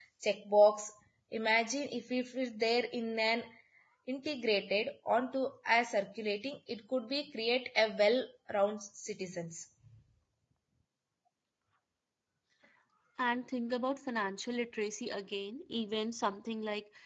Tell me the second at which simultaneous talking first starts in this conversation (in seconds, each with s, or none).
none